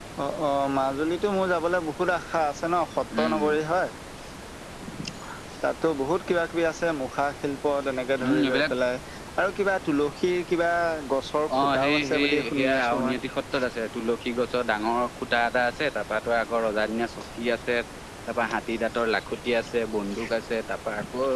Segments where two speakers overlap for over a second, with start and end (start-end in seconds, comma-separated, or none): 11.6-13.1